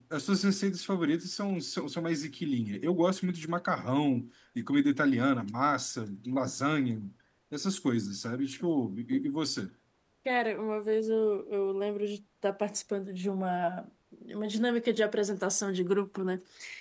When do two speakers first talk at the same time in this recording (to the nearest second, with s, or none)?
none